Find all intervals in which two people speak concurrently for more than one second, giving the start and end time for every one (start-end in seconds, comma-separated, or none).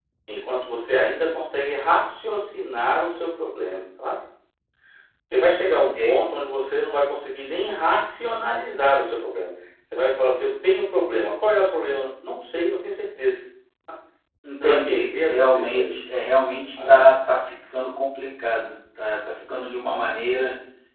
14.6-15.9